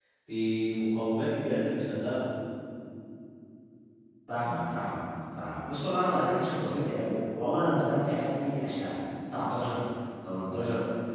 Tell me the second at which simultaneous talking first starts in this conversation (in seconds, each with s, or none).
none